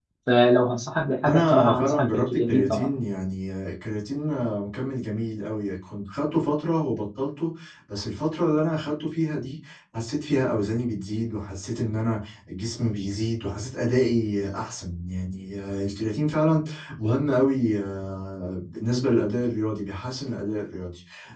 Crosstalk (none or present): present